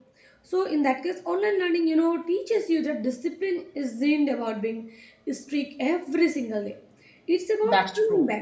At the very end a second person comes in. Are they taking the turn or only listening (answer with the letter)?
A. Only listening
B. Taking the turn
A